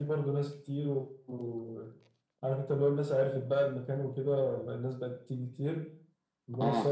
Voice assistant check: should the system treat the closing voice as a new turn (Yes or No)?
No